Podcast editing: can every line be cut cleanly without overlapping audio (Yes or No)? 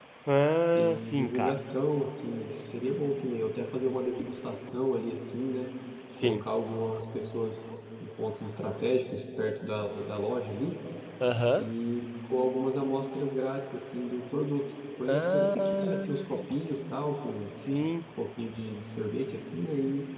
No